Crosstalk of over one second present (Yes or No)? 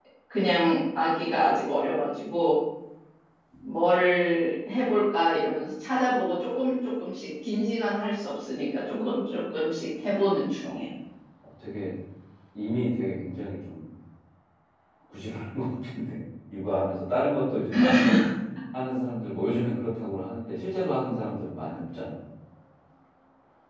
No